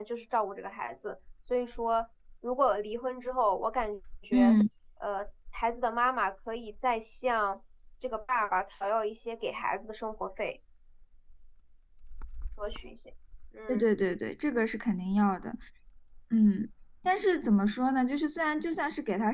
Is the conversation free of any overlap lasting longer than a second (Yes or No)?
Yes